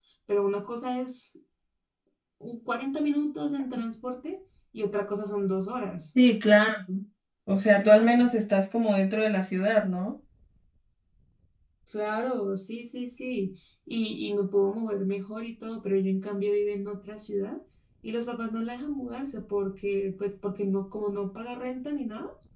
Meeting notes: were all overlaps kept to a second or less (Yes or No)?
Yes